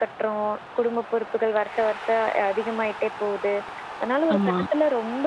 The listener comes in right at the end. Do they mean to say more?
No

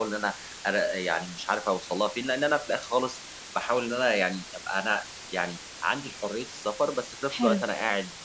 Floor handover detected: No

